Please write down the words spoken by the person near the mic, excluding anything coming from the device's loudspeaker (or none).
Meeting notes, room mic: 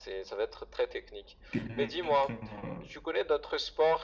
te mettre. euh,